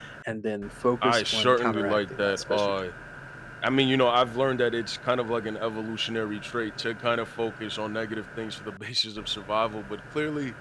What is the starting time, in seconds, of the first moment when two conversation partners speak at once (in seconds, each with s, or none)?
1.0 s